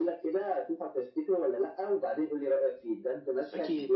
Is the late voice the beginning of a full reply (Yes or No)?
Yes